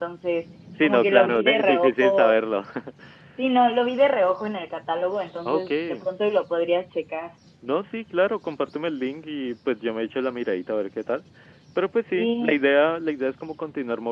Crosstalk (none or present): present